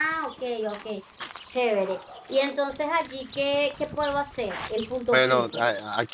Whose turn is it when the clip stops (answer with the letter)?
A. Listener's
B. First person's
A